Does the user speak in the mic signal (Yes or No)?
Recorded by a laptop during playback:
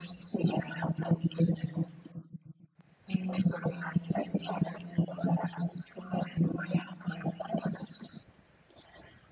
No